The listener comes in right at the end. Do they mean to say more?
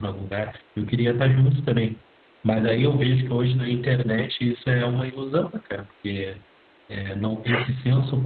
No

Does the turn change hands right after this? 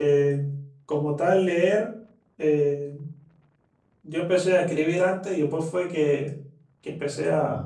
No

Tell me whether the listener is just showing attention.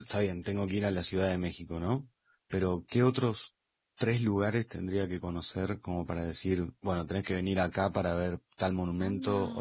Yes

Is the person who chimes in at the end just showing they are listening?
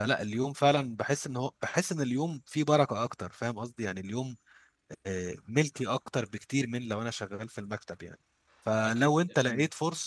Yes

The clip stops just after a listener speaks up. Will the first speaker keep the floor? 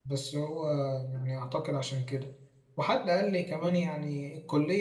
Yes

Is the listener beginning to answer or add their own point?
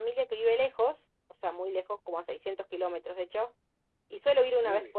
No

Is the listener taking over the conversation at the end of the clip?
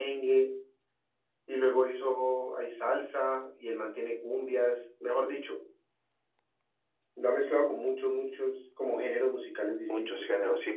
Yes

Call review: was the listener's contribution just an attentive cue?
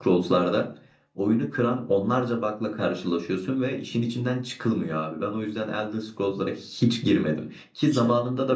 Yes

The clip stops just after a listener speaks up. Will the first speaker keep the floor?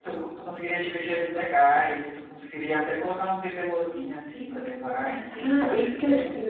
No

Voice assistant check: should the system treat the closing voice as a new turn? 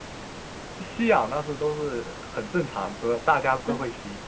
No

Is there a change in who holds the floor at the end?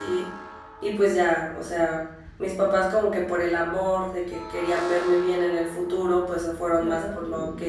No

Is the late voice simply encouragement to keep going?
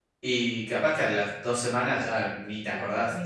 No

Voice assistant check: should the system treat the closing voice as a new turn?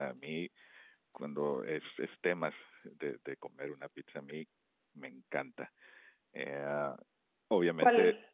No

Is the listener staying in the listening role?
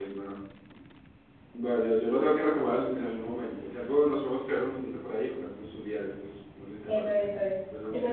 No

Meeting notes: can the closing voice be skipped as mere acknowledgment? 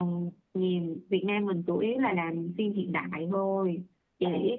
Yes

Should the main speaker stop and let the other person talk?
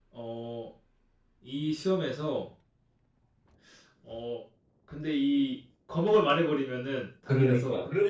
Yes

